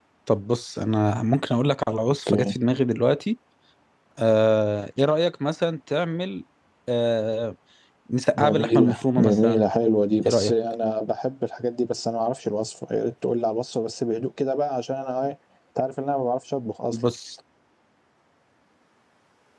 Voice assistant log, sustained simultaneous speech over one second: present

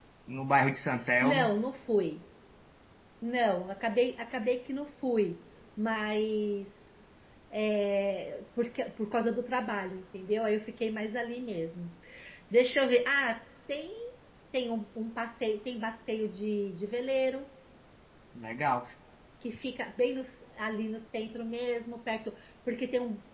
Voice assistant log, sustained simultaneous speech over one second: none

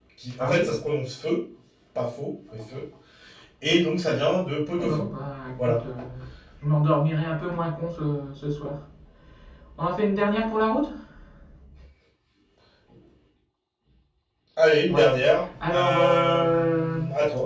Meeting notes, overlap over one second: present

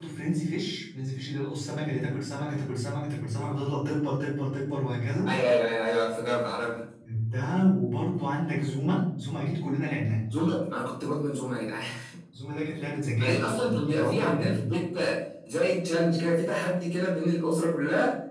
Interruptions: present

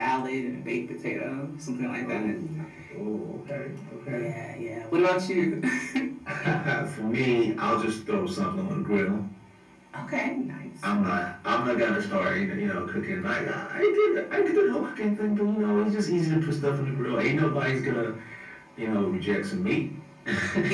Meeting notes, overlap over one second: none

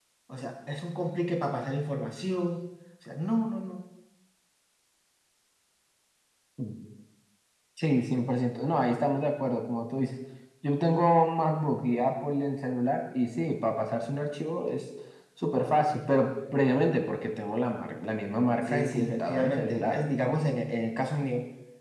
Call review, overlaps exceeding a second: present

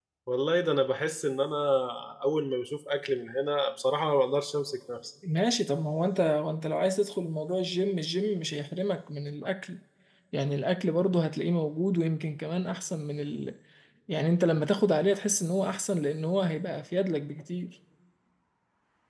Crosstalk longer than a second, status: none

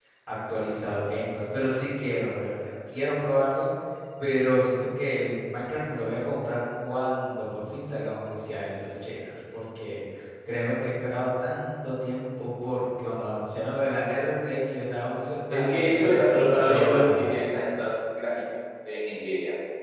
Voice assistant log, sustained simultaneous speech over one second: present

